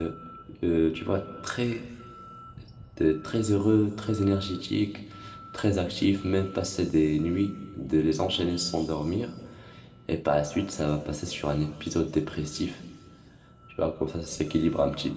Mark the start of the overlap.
none

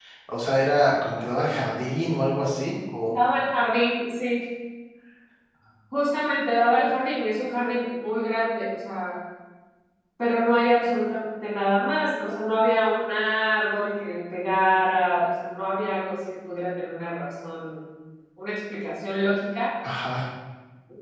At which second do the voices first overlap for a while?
none

